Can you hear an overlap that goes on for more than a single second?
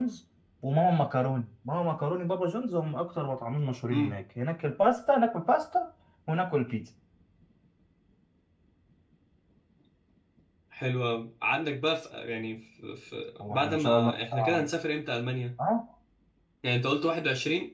Yes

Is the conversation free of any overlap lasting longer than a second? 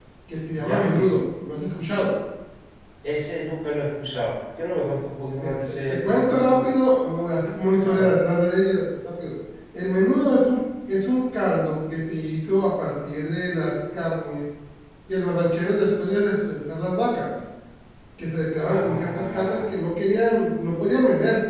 No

